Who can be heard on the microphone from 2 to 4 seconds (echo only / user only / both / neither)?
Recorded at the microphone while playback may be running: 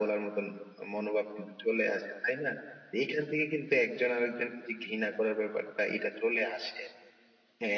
echo only